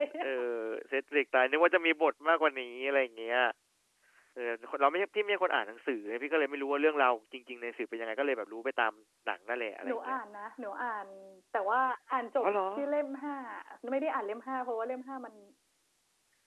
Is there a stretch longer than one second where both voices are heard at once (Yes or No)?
No